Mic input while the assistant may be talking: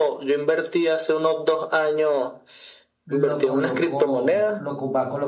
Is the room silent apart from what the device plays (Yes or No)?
No